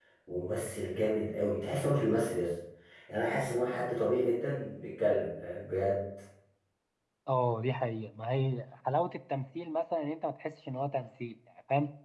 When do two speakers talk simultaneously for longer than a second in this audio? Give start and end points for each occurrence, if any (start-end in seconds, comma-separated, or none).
none